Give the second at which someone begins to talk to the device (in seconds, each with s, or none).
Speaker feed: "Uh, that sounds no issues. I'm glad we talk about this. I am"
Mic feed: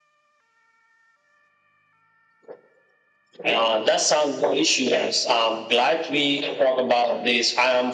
none